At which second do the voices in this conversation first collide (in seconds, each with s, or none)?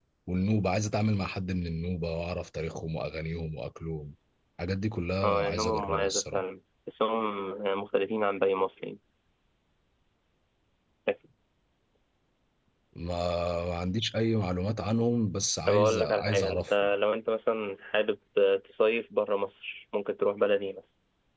5.2 s